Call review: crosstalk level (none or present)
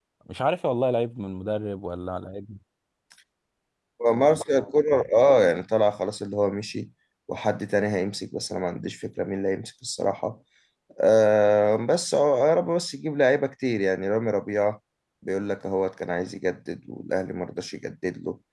none